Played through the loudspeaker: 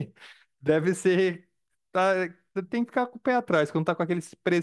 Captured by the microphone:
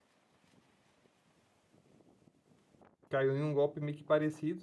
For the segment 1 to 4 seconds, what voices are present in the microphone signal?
user only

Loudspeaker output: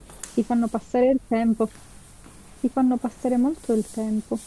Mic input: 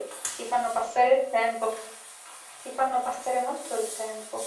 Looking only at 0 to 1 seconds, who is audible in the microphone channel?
echo only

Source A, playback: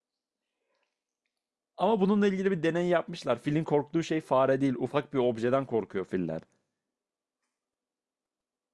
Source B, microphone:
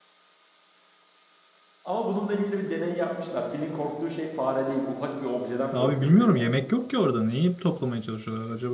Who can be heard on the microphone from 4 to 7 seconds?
both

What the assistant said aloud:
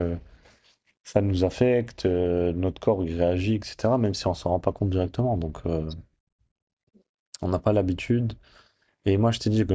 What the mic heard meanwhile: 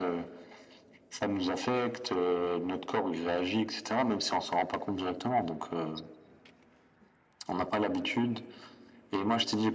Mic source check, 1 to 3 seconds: echo only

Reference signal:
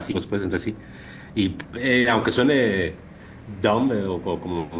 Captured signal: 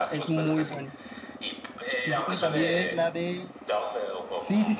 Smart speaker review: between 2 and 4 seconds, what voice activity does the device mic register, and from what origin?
both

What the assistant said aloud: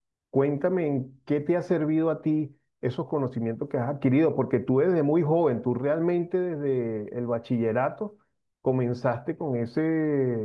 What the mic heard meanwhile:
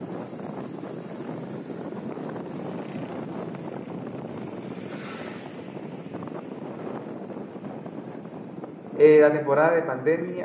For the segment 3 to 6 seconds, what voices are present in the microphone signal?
neither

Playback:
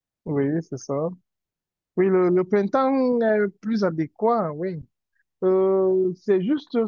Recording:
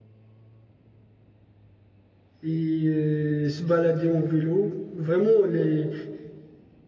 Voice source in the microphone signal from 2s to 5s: user only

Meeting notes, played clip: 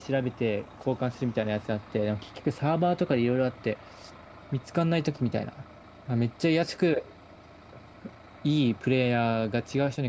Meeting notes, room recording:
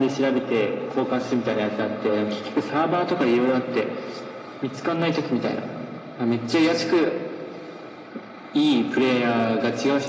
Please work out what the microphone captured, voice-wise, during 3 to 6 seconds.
echo only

